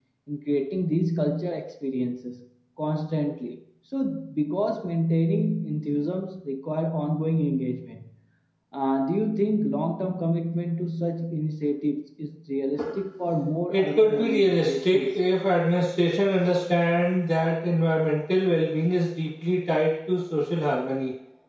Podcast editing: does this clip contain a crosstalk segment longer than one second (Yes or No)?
Yes